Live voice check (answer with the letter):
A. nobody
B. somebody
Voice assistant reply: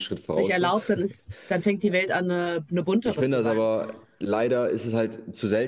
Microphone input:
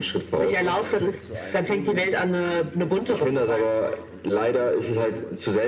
B